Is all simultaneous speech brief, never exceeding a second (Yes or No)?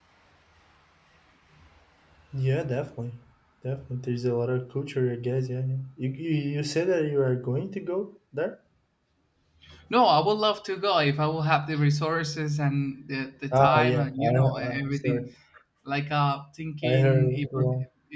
No